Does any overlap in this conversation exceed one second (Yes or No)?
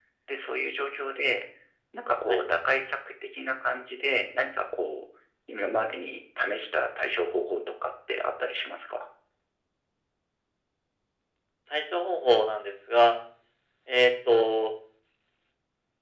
No